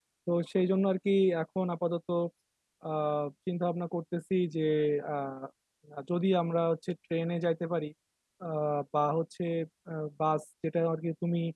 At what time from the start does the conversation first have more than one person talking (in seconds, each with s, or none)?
none